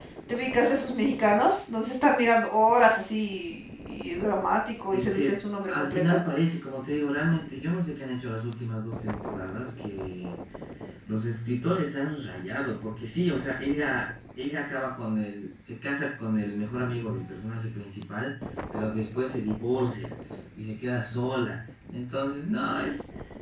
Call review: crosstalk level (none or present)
present